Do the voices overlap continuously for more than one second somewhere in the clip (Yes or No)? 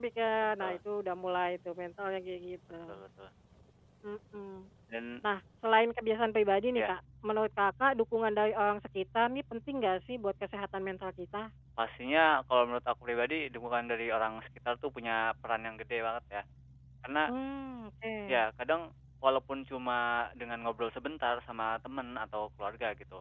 No